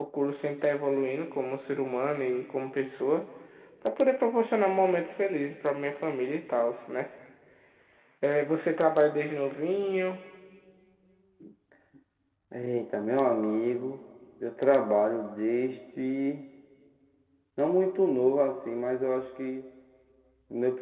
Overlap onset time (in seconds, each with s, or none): none